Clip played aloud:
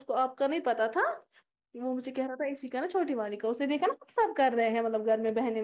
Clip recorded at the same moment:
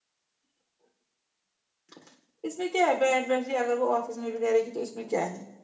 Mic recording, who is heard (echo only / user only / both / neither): user only